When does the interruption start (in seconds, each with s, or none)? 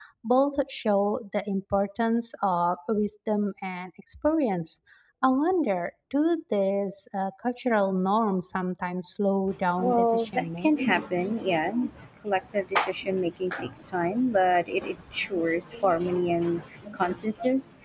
9.8 s